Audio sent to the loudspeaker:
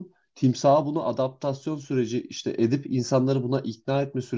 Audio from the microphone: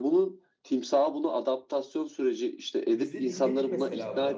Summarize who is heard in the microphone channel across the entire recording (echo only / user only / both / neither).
both